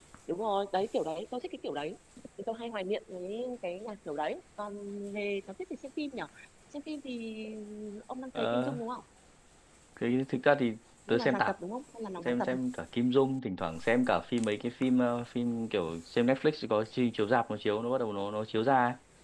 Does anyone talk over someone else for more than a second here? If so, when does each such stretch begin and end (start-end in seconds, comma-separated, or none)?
none